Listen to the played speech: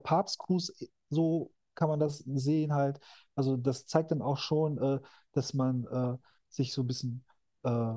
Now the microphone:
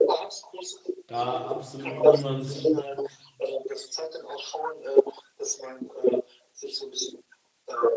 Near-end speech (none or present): present